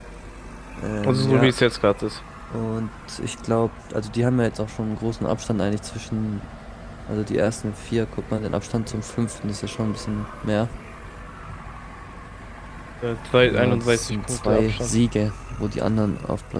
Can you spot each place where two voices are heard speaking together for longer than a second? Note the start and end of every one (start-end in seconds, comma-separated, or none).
13.4-15.0